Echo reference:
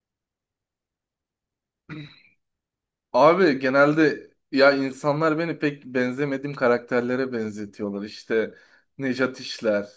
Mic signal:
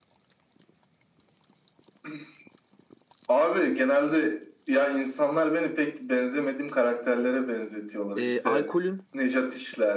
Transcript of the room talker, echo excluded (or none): e, alkolün